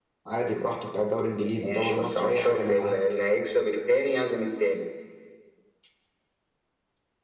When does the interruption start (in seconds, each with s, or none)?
1.6 s